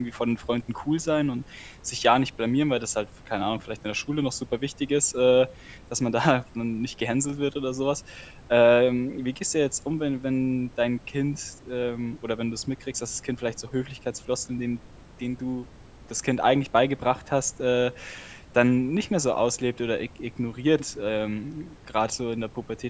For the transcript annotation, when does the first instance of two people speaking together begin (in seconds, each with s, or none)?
none